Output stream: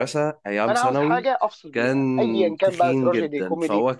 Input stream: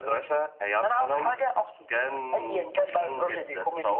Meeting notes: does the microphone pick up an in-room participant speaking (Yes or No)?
No